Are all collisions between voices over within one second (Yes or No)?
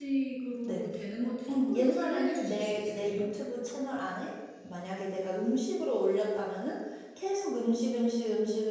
No